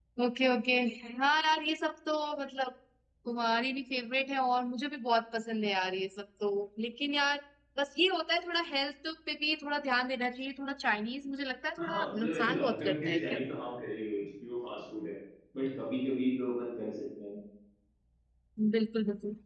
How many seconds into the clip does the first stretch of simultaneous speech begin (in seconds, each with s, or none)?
11.8 s